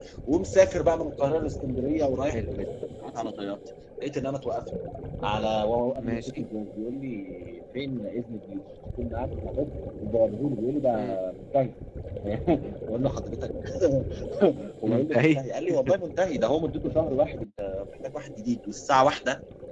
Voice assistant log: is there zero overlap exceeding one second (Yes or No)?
Yes